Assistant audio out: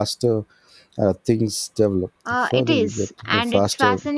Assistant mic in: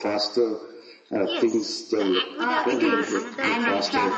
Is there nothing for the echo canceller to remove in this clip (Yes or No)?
No